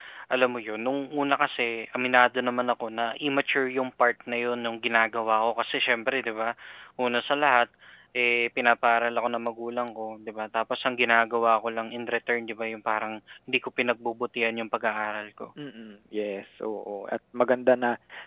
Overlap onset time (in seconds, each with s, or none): none